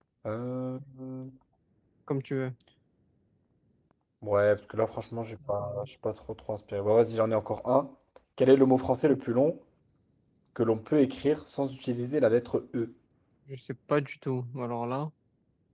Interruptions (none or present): none